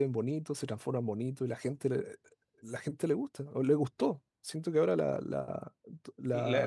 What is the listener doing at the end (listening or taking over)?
taking over